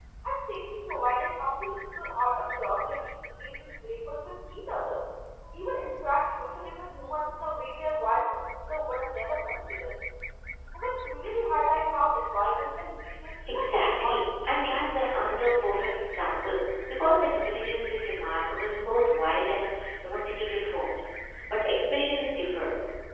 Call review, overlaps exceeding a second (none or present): present